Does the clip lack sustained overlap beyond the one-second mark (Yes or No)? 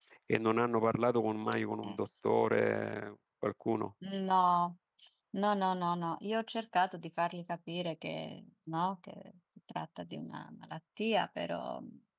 Yes